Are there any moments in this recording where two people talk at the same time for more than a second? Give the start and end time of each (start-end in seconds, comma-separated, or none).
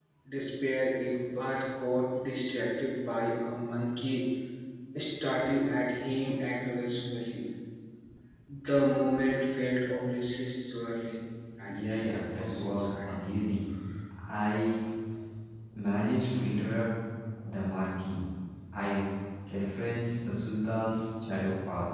11.8-13.1